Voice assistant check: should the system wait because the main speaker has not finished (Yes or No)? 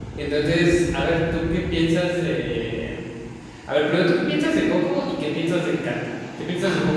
Yes